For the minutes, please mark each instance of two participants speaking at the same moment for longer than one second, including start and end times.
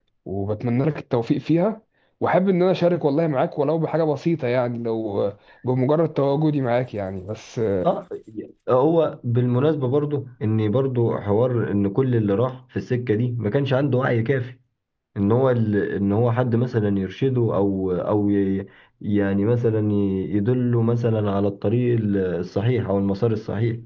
none

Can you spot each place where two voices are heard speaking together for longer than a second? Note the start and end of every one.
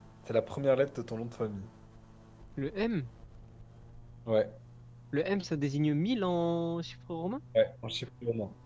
none

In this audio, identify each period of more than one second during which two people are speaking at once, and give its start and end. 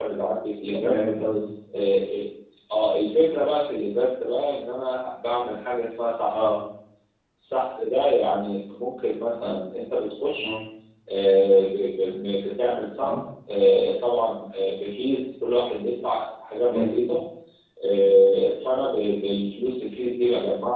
none

